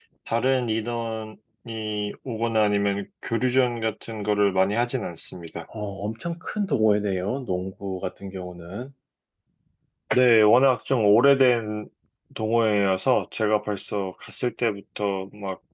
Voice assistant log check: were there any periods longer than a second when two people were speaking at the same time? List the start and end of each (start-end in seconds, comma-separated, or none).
none